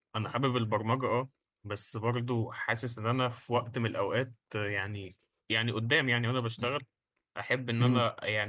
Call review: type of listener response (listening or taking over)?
listening